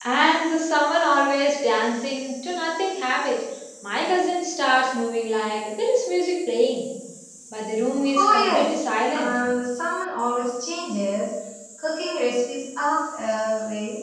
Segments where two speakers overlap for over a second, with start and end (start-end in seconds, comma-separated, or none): 8.1-9.4